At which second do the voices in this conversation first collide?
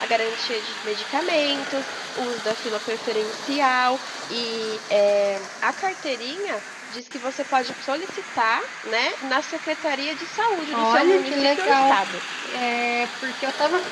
10.7 s

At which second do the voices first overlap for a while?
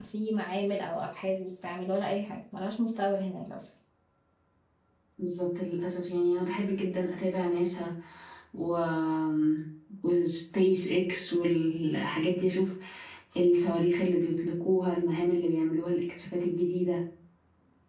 none

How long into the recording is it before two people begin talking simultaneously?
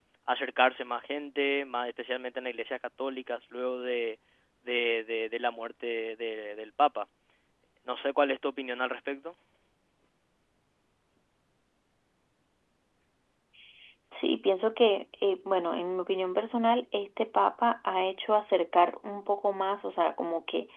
none

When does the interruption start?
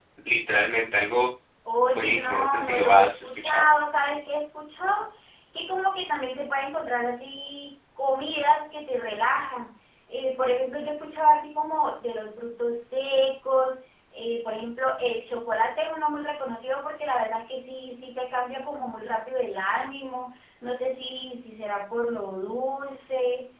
1.8 s

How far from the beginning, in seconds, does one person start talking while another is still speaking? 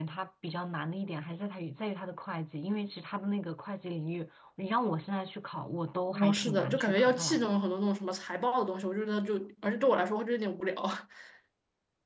6.1 s

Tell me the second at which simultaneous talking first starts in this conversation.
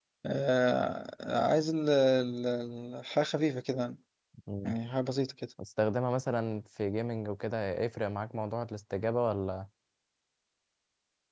none

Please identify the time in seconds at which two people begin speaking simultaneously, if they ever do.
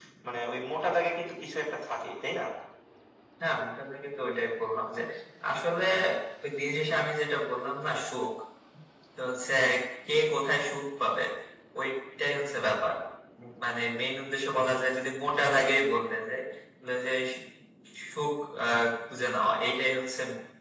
none

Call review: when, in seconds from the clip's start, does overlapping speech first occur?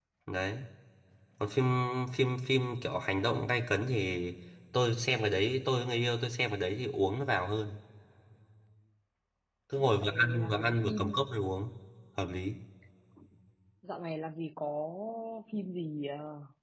9.8 s

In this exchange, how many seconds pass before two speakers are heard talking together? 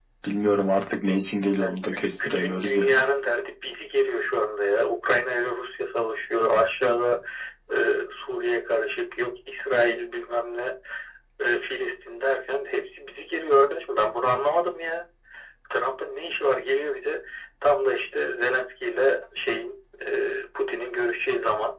1.6 s

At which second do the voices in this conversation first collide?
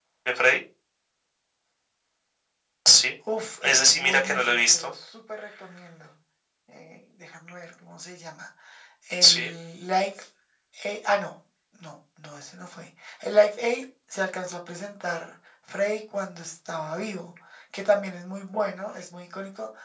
3.6 s

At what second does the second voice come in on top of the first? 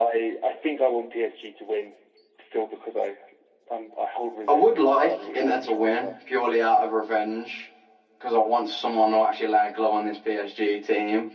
4.5 s

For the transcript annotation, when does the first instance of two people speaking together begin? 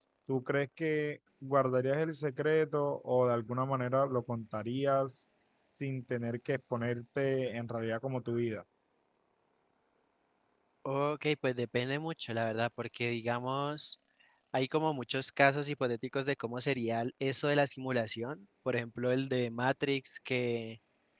none

